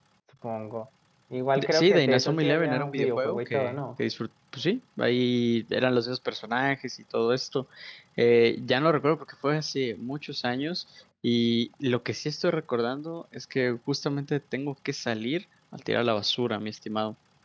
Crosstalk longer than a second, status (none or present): present